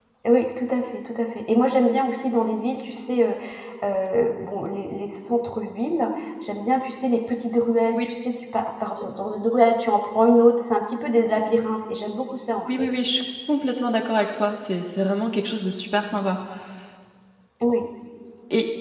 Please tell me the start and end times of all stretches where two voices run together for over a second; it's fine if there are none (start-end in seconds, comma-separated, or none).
none